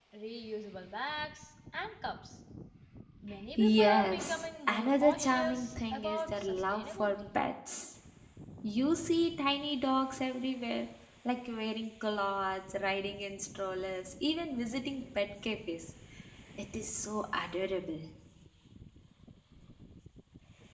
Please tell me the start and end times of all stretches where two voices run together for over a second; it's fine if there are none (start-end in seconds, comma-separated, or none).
3.6-7.2